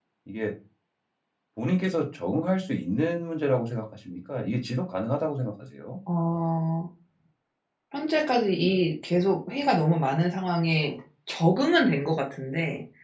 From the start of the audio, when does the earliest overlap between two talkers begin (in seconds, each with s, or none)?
none